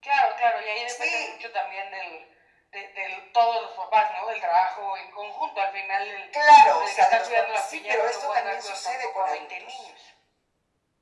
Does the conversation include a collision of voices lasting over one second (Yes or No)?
Yes